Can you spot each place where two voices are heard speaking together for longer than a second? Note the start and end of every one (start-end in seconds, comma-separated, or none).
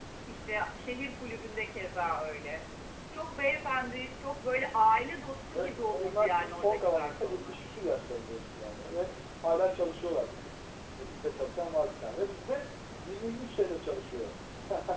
5.5-7.6